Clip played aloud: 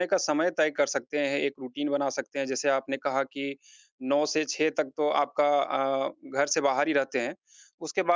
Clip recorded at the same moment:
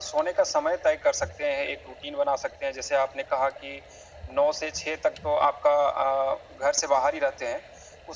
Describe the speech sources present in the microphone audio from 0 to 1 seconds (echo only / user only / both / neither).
echo only